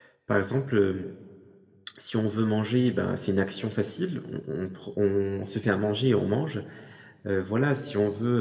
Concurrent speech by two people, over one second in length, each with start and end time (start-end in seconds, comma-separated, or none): none